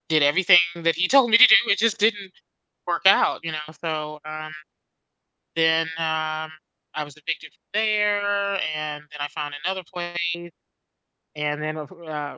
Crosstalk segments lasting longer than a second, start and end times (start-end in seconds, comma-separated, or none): none